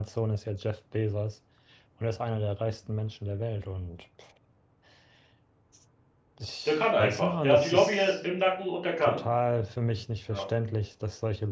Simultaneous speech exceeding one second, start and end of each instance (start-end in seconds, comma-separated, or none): 6.7-8.1